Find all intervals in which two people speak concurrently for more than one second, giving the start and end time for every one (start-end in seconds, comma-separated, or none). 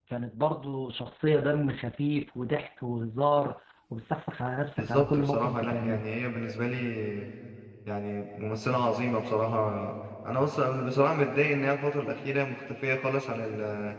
4.8-6.0